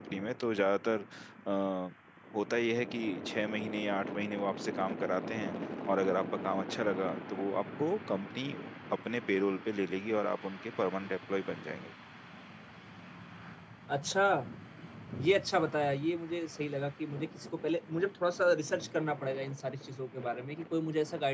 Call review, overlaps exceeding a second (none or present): none